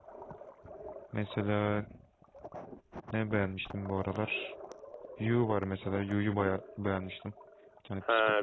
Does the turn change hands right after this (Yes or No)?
Yes